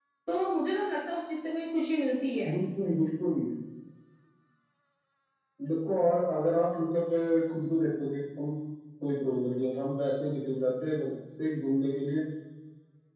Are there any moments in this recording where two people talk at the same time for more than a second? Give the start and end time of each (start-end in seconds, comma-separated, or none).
none